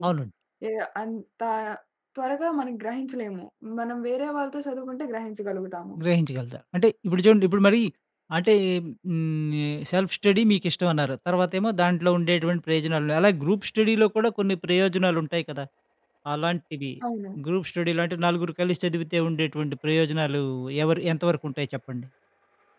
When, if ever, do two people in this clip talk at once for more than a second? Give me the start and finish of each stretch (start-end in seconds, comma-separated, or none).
none